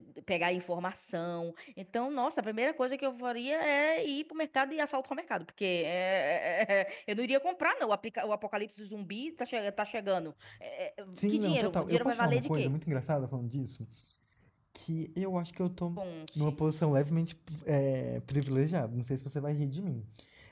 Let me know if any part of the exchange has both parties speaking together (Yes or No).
Yes